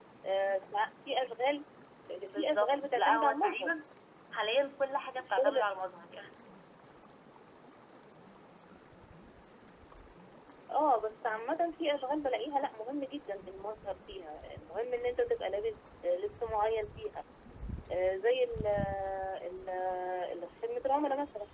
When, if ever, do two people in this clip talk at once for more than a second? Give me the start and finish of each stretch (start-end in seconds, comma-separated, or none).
2.2-3.7